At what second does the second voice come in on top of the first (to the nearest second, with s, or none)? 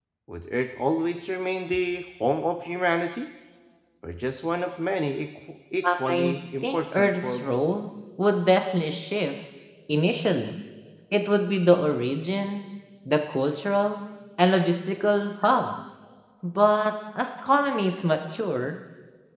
6 s